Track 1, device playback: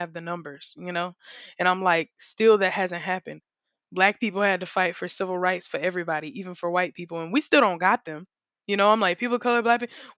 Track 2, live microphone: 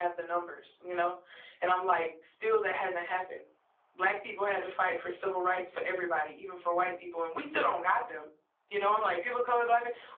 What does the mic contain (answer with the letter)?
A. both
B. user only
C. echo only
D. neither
C